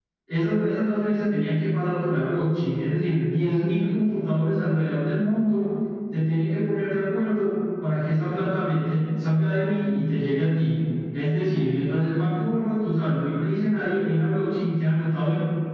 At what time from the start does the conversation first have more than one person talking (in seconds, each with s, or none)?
none